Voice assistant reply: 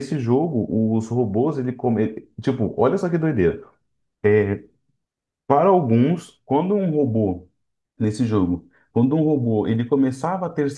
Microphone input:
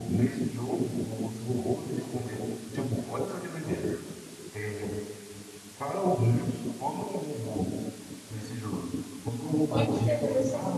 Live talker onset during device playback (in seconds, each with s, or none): 9.6 s